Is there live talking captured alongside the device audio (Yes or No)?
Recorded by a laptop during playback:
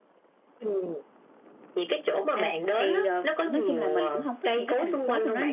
Yes